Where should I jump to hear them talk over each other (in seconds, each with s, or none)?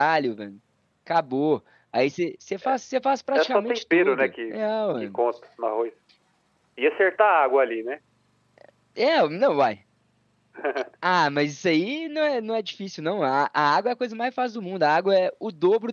3.4 s